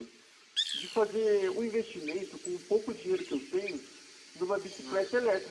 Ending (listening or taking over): listening